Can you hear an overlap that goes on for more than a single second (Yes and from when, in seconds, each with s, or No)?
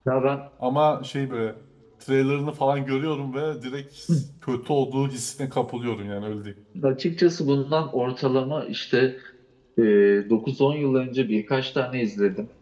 No